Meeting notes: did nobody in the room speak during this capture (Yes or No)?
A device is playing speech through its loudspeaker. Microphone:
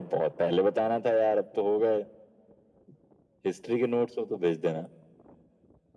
Yes